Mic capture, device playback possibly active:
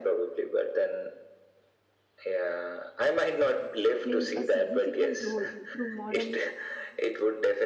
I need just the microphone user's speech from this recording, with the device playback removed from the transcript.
plays a significant role through modern

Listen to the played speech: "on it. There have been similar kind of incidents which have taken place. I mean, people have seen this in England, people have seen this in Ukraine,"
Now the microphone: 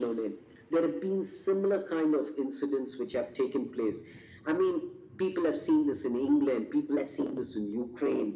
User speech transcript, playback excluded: none

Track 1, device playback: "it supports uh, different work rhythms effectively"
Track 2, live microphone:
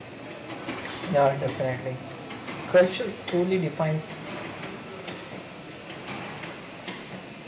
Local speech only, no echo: Yeah, definitely. Culture truly defines

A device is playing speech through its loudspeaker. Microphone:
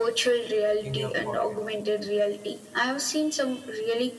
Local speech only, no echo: in your pocket.

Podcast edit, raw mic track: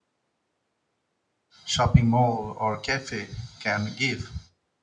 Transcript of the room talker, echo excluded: shopping mall or cafe can give

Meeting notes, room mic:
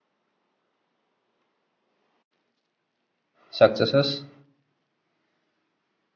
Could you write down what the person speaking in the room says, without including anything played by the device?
successes,

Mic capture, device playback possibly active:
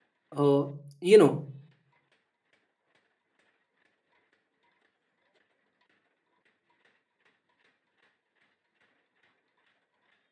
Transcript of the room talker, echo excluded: uh, you know

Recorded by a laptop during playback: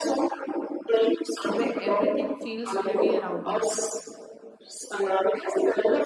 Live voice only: when everything feels heavy around you

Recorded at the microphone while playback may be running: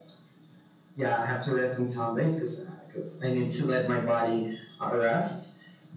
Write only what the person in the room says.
none

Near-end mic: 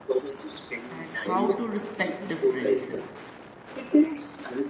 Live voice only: And how to respect differences.

